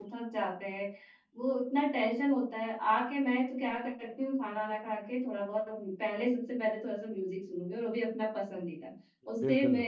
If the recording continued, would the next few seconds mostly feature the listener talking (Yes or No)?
No